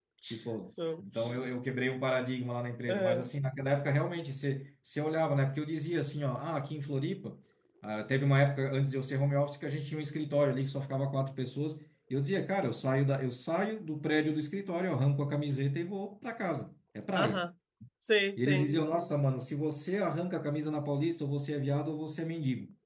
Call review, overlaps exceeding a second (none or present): none